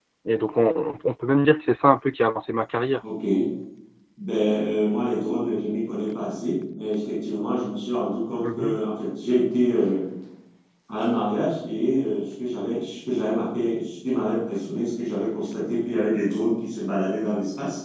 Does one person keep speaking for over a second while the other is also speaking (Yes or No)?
No